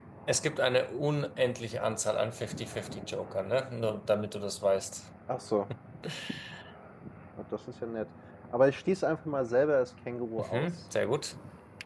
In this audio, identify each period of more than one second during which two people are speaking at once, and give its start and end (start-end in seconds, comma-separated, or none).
none